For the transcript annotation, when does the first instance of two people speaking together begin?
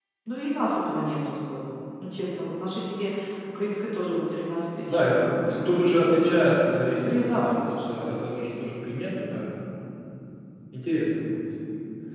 4.9 s

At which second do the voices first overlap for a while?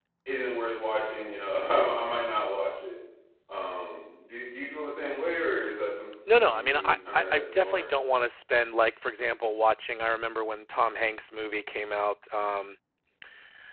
6.3 s

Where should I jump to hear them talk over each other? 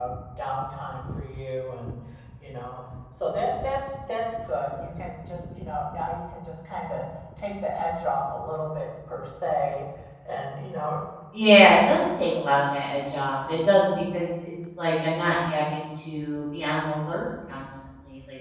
none

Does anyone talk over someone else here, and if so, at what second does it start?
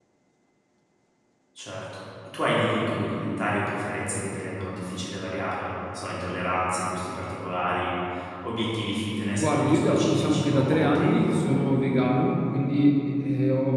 9.4 s

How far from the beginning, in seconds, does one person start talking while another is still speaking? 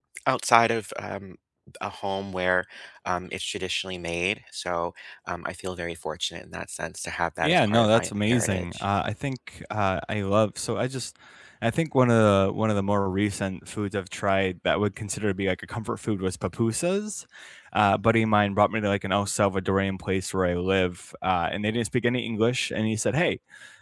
7.4 s

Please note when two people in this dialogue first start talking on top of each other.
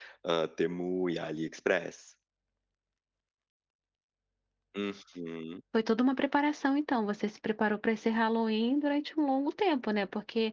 none

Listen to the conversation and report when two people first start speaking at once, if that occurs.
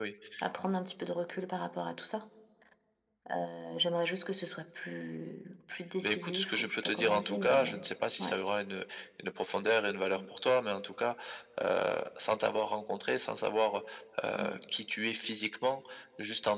6.0 s

